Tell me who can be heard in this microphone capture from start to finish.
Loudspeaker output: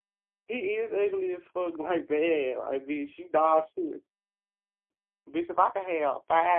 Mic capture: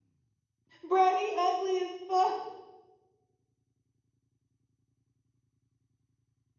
user only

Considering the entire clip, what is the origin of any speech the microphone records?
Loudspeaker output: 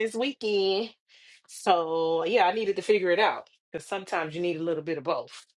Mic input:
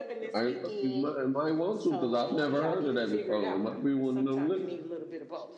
both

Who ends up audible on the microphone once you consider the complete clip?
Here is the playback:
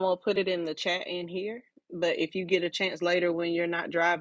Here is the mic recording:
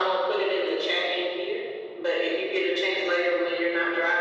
echo only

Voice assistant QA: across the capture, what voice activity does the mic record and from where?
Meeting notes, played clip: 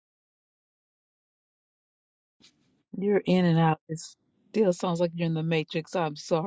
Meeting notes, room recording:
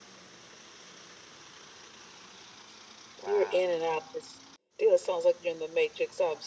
both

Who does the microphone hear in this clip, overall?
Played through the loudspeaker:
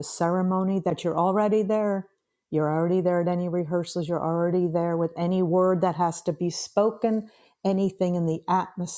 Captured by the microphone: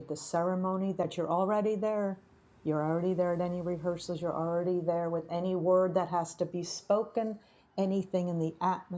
echo only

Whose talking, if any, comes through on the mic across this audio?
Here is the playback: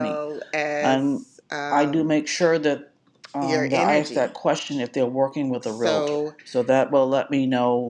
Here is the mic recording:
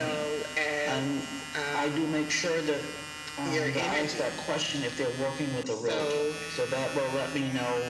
echo only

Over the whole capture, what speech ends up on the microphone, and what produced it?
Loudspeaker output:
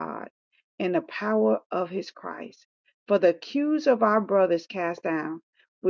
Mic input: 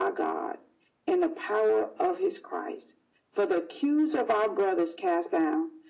echo only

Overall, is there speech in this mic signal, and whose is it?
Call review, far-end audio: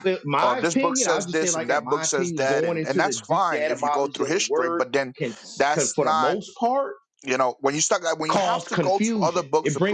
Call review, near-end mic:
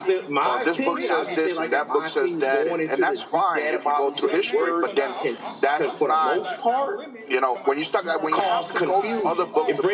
both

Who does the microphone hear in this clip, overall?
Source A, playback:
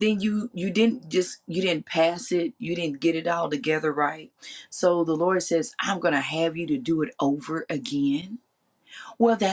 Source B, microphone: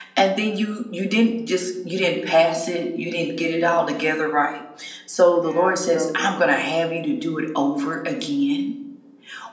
both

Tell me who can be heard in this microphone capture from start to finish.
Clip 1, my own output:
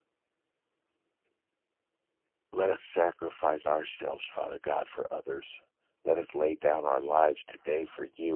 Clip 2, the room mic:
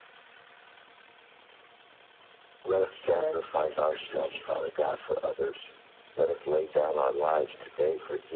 both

